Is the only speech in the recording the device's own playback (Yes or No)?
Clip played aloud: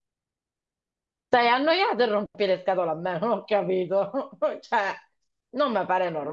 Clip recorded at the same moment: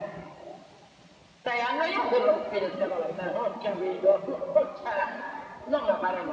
Yes